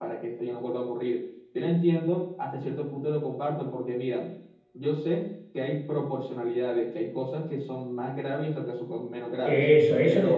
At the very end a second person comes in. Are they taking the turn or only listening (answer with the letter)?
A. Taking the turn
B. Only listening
A